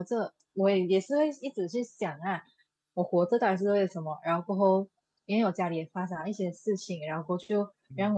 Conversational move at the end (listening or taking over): listening